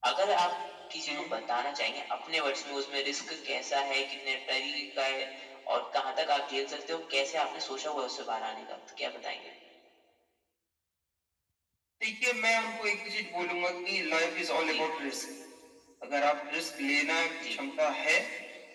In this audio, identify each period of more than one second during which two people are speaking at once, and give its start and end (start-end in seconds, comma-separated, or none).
none